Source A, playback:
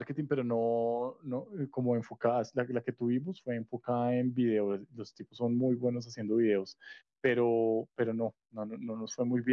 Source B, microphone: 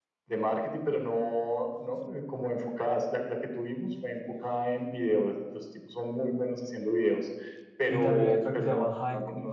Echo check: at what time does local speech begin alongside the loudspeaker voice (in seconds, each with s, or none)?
7.9 s